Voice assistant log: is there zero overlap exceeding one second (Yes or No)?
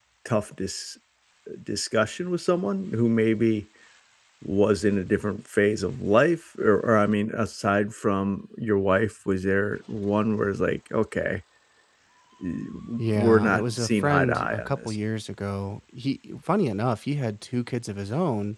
No